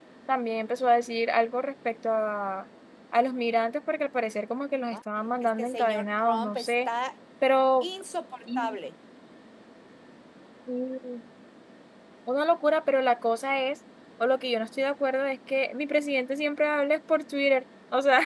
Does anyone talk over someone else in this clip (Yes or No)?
Yes